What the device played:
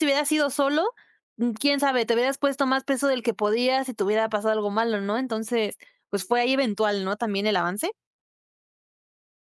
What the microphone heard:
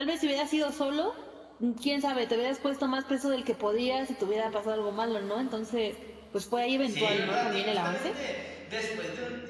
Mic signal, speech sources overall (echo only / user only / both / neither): both